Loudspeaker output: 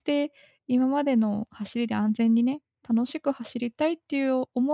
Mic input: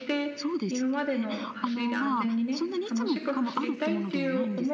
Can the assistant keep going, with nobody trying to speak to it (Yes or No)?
No